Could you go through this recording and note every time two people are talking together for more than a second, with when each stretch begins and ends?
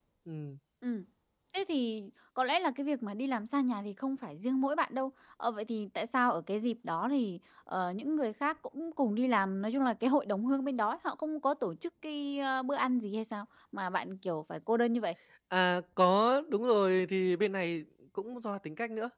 none

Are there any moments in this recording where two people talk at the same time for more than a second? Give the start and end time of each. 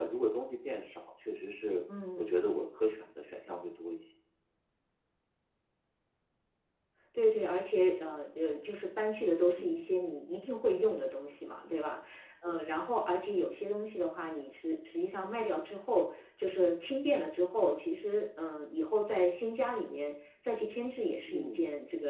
none

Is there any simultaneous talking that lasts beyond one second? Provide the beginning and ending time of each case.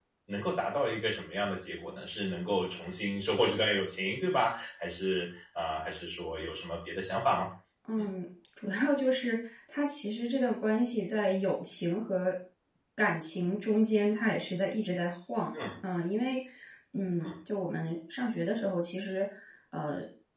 none

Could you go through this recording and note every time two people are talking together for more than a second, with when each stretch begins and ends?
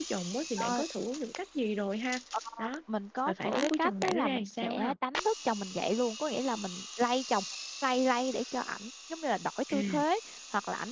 3.3-4.9

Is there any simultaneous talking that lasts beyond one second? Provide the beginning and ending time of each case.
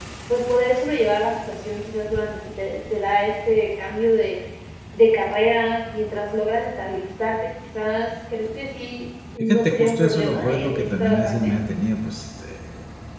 9.4-11.5

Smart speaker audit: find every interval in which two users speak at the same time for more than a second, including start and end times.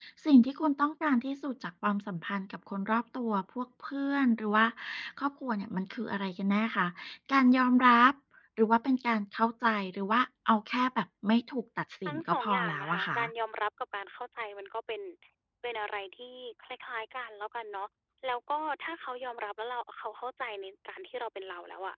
12.1-13.3

